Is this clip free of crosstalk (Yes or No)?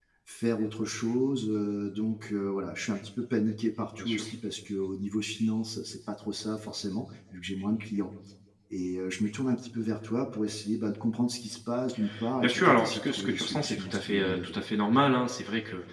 No